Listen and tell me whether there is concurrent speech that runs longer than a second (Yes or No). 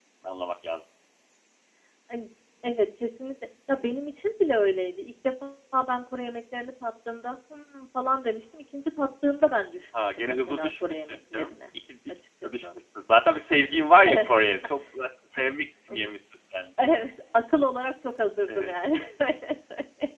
Yes